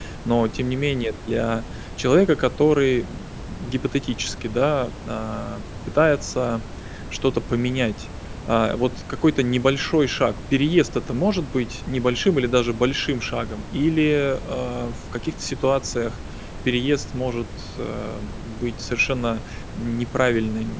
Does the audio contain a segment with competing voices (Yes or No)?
No